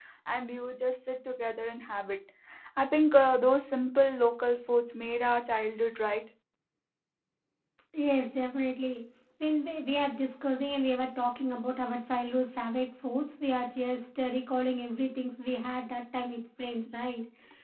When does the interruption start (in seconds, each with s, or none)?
none